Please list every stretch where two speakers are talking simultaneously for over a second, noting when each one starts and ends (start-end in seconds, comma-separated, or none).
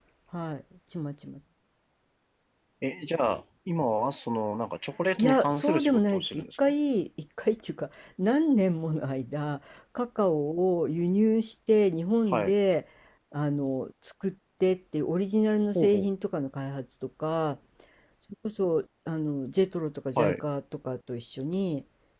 5.2-6.4